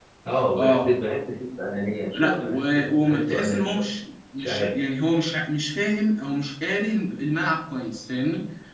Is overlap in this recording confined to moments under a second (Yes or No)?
No